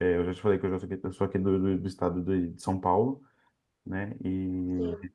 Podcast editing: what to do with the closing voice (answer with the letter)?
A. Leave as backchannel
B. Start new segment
A